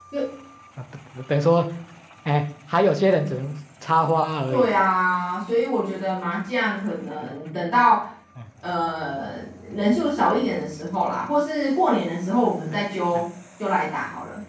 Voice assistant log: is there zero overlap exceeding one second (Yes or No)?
Yes